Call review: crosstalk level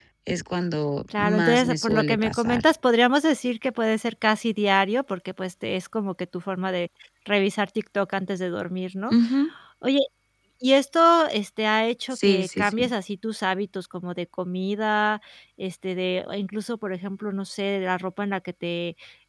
present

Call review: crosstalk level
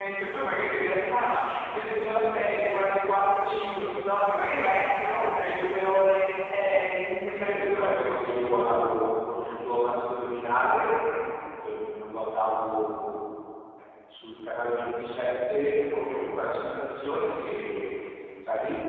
present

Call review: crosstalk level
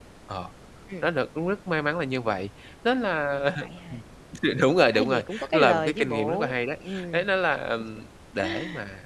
present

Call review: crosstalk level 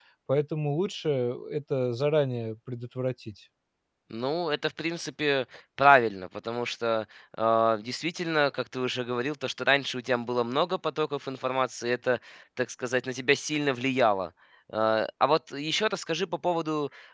none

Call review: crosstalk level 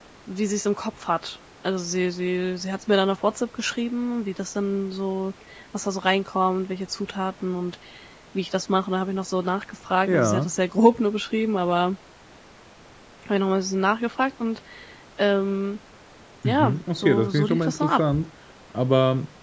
present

